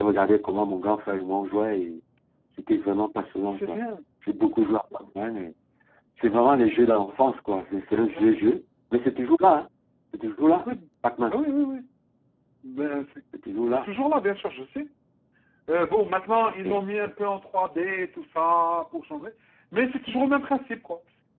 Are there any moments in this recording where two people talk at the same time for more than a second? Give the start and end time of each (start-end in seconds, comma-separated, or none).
none